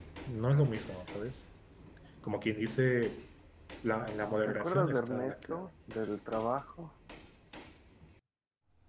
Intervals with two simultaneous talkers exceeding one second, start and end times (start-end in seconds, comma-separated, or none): 4.5-5.7